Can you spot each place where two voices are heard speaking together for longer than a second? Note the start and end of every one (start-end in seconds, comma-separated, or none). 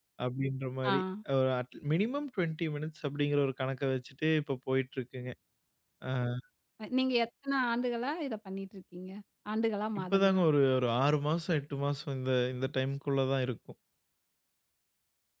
none